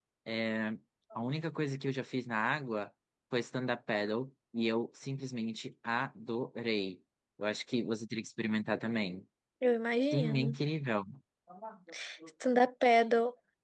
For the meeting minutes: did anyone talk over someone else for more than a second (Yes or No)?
No